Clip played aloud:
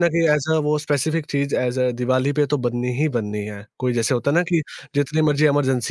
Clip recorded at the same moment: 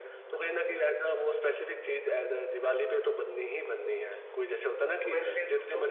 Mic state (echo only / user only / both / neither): both